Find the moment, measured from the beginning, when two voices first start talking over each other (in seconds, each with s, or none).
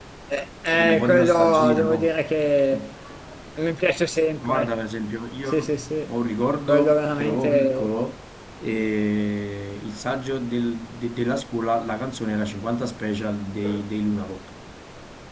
0.7 s